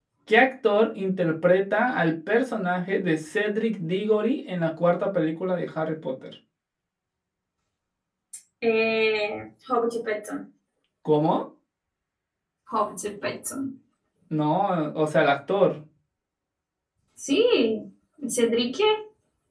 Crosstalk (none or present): none